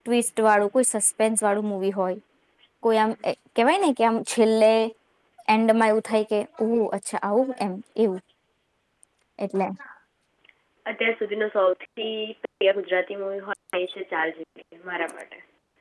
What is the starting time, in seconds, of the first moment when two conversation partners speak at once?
none

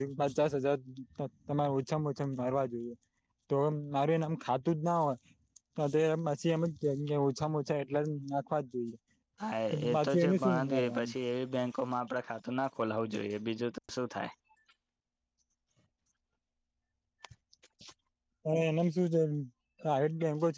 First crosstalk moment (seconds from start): 9.9 s

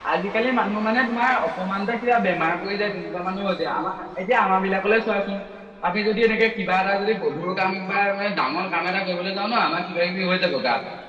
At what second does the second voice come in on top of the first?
none

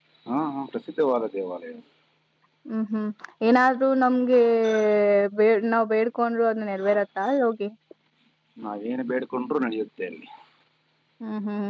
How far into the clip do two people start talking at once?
none

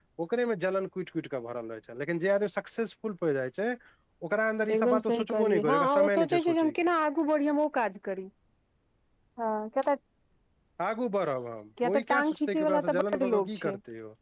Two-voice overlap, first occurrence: 4.8 s

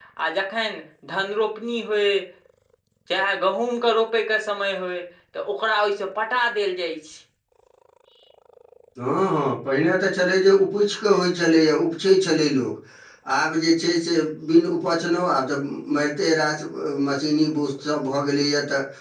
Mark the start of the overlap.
none

